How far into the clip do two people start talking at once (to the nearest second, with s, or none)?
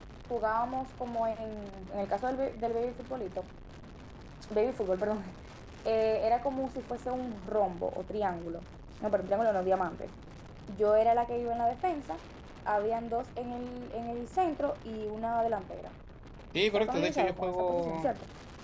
17 s